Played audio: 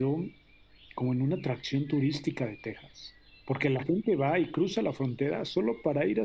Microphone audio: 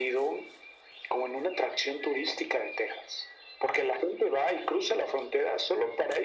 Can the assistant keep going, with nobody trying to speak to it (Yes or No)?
Yes